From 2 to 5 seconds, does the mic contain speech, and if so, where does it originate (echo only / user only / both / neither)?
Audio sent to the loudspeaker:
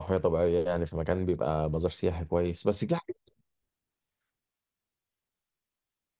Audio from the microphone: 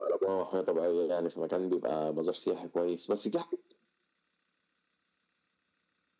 echo only